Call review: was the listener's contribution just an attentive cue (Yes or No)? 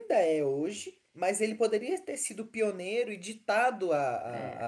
Yes